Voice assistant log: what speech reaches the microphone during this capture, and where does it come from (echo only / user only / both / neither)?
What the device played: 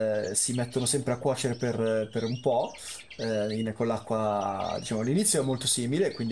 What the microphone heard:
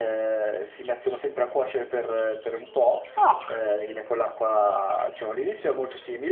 both